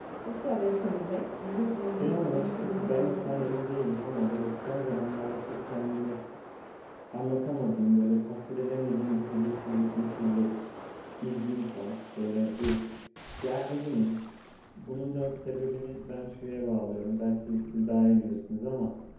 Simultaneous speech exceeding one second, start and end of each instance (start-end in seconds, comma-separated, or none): 2.0-3.5